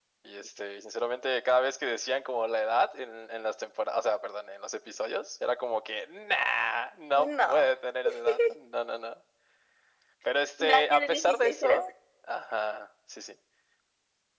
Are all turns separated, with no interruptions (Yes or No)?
No